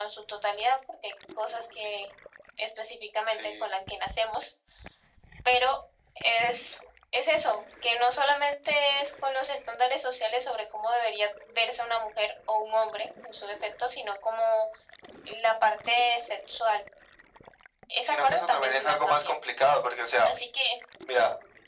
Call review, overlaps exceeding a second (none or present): present